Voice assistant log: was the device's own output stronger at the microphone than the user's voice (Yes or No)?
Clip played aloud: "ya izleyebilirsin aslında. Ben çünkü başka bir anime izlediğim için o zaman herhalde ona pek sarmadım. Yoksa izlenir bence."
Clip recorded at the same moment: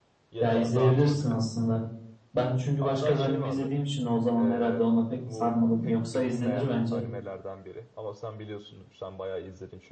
Yes